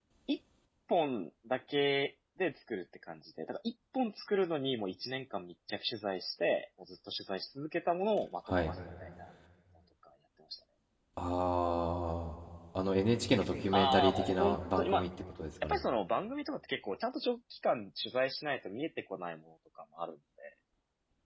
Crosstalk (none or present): present